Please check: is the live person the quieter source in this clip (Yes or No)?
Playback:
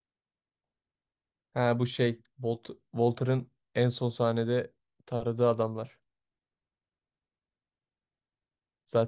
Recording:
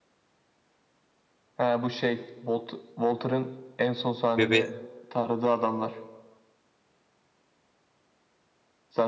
No